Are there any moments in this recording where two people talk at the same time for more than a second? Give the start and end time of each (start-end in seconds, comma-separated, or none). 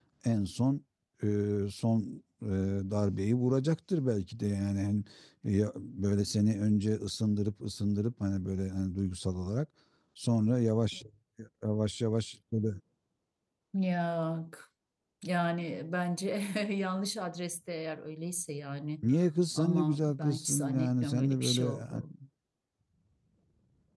19.6-21.8